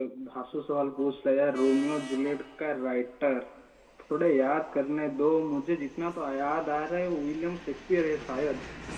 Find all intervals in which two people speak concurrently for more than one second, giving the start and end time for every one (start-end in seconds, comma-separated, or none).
none